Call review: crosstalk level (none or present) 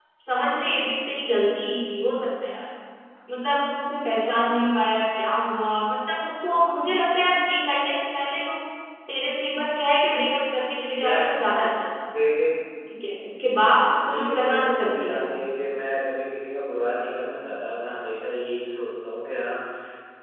present